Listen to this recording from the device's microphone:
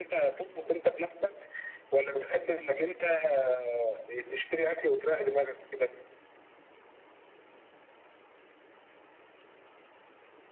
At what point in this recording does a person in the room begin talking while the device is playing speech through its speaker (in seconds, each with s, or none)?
none